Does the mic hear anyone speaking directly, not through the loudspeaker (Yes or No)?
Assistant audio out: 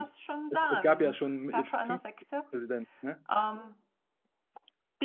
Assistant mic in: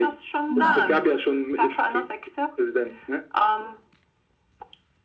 Yes